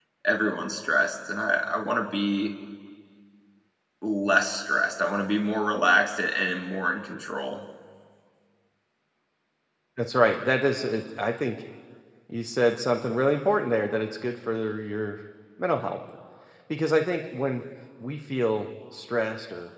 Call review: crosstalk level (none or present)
none